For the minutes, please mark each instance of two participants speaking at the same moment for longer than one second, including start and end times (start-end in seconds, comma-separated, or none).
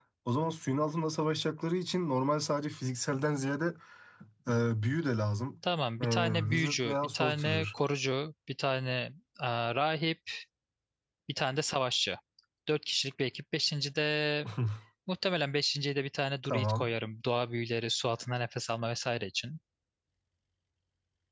6.0-7.7